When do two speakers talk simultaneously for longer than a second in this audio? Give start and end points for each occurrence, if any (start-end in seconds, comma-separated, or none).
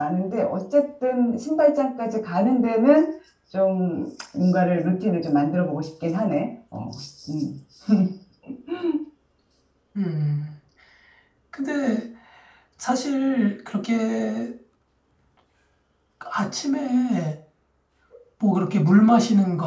none